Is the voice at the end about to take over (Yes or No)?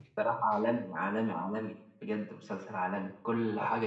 No